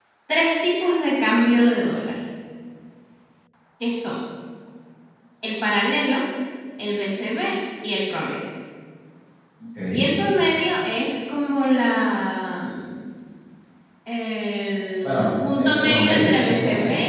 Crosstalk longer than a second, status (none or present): present